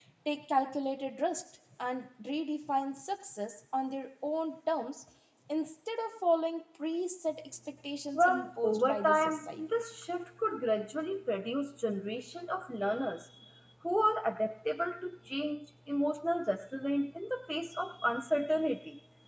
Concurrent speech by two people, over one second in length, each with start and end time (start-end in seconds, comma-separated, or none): 8.1-9.6